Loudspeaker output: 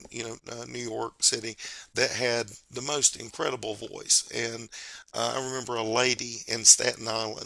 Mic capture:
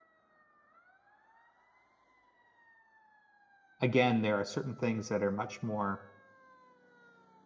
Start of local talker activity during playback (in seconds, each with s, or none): 3.8 s